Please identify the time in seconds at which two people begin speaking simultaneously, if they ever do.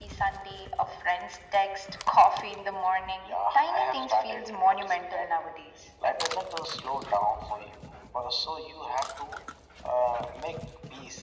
3 s

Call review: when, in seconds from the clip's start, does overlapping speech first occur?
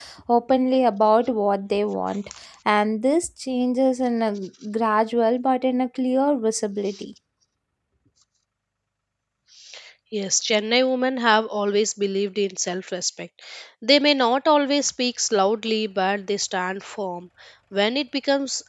none

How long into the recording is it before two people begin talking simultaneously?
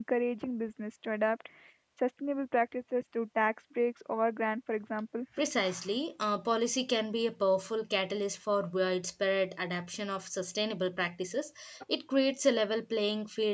none

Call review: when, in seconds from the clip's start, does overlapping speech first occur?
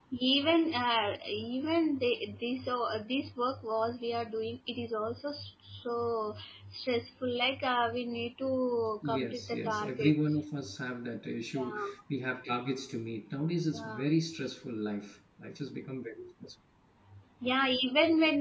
9 s

